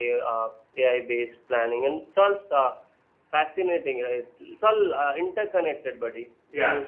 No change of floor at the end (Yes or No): Yes